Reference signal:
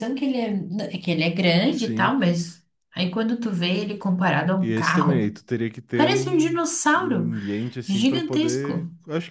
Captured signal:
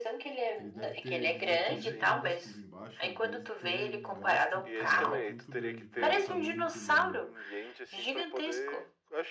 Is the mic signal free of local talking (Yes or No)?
No